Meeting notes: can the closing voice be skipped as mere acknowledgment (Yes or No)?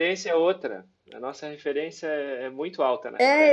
No